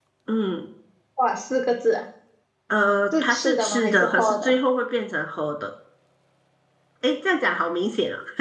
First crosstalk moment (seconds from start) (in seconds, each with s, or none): 3.2 s